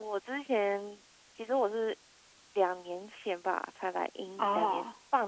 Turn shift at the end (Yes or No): No